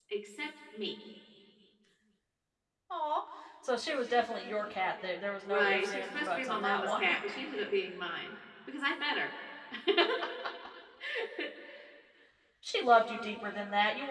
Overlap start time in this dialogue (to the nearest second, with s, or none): 5 s